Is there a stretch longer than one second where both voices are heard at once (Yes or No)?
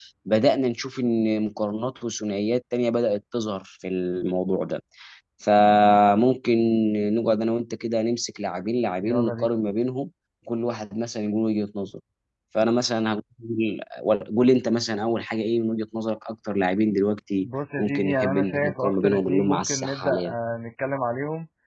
Yes